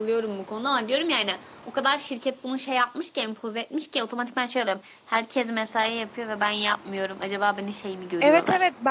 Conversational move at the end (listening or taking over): taking over